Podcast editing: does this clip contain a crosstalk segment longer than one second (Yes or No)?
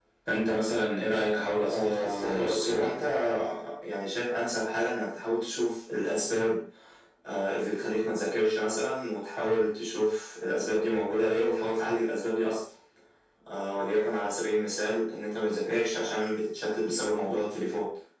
Yes